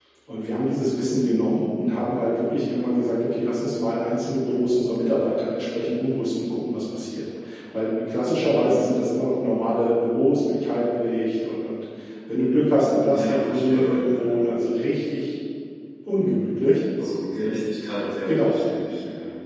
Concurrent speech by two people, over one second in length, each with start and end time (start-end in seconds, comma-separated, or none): 13.1-14.4